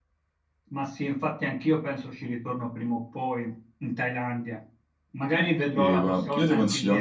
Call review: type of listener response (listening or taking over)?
taking over